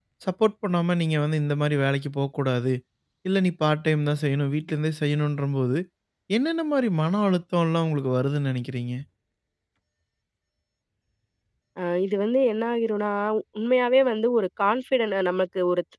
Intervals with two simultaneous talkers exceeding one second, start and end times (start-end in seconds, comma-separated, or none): none